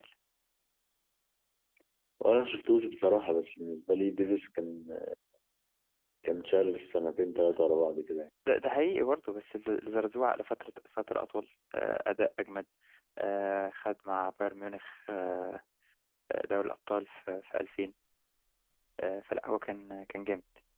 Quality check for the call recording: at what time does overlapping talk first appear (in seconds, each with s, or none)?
none